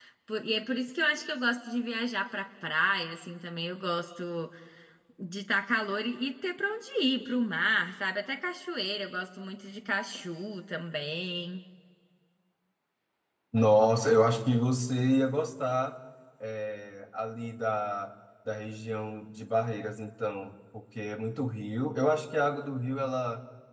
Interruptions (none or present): none